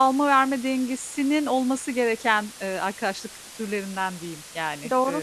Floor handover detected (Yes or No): Yes